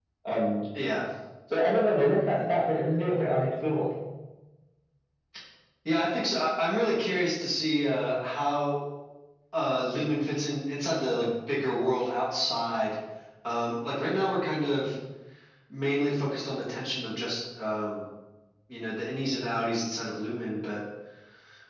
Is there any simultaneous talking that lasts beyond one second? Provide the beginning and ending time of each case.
none

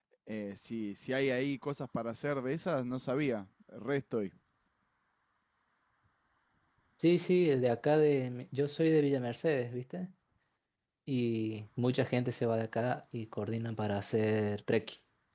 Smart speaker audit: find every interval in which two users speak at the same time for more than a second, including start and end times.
none

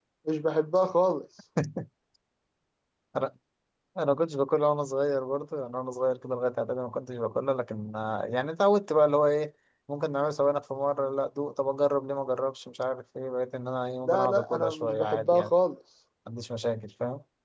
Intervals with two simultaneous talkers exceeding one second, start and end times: 14.1-15.5

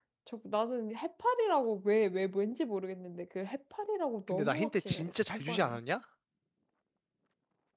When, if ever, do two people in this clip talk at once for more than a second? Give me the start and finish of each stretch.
4.3-5.8

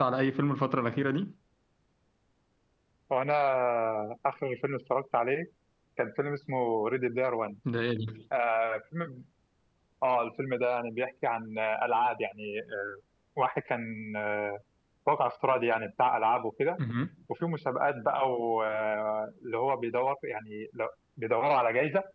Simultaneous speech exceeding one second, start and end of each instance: none

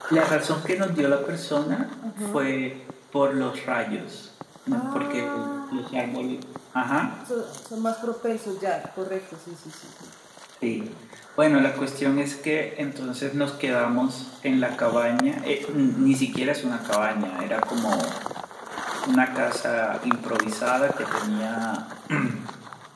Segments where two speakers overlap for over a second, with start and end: 4.7-6.0

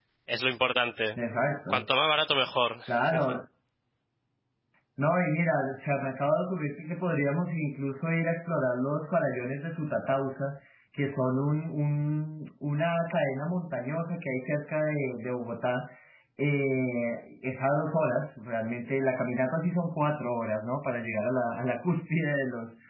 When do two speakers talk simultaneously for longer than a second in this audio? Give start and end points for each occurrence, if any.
none

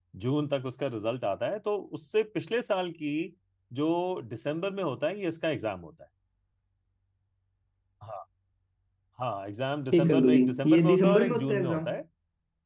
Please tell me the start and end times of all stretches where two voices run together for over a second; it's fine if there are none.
9.9-11.9

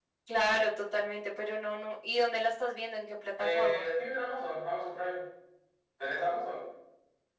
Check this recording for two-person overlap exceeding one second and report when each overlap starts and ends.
none

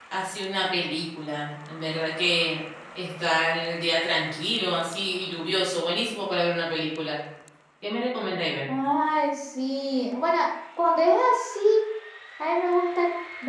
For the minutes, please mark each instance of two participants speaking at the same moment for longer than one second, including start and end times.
none

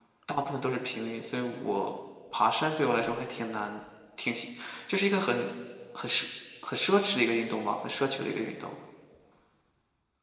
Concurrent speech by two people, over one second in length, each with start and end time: none

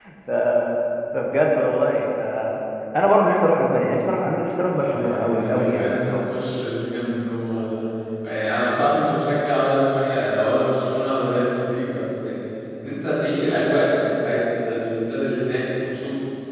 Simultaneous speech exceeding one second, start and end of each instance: 4.7-6.2

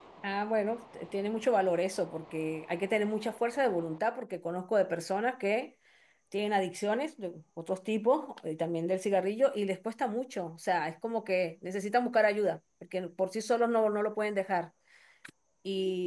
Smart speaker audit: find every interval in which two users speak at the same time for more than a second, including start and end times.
none

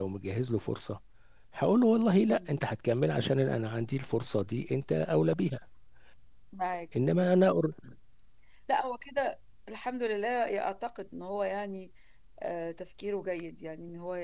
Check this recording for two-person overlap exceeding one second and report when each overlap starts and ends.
none

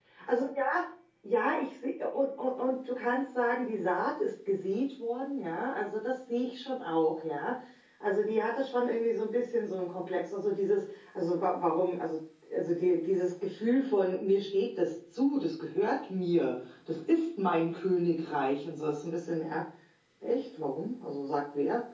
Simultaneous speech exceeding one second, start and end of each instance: none

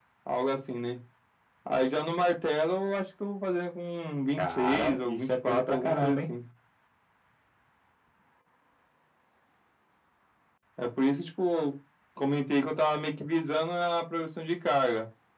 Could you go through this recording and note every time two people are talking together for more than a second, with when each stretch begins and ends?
4.4-6.2

